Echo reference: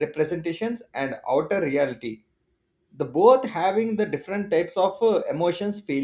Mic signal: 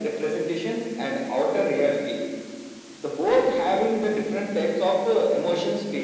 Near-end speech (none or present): none